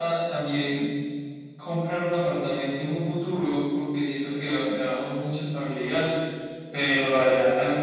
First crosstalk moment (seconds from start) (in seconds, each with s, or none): none